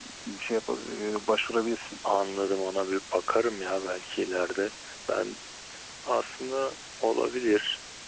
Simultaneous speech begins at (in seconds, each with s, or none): none